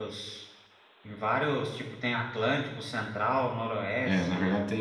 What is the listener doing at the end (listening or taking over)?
taking over